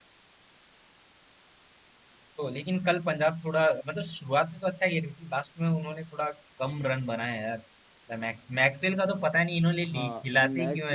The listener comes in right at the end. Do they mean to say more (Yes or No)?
Yes